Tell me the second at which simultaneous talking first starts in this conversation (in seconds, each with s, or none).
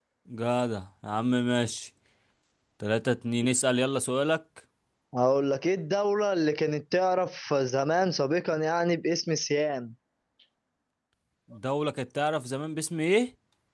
none